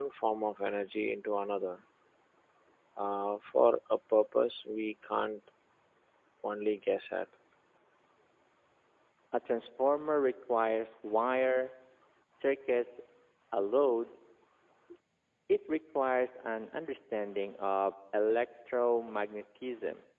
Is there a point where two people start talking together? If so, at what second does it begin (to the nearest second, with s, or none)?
none